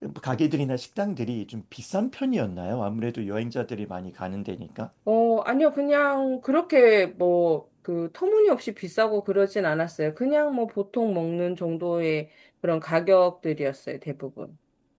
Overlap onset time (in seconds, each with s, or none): none